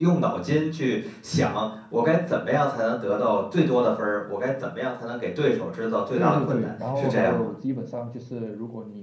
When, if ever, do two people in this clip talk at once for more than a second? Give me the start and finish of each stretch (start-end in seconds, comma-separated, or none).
6.2-7.5